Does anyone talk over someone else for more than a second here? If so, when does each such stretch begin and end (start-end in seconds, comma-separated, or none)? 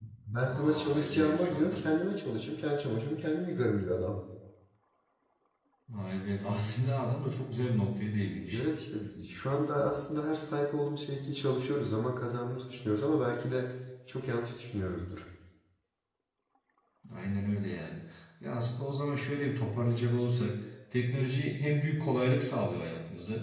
0.5-1.8